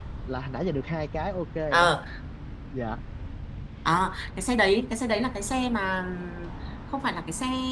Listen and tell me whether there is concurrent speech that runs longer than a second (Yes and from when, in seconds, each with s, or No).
No